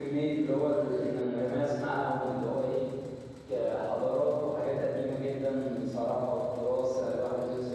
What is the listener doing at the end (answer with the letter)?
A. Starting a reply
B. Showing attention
B